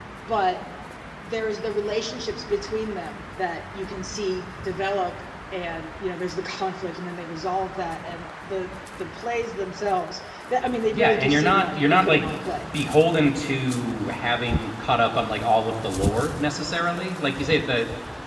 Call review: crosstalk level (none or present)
present